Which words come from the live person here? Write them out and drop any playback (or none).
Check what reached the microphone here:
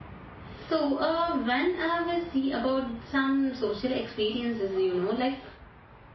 So, uh, whenever we see about some social experiences, you know, like